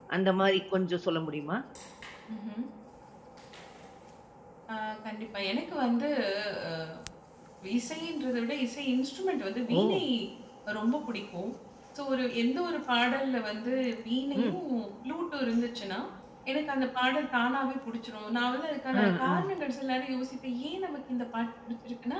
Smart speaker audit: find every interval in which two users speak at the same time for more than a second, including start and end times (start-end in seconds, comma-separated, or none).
none